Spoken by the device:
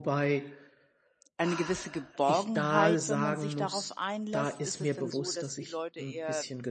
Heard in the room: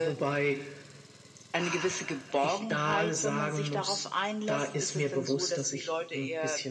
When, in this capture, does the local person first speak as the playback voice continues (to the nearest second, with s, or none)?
none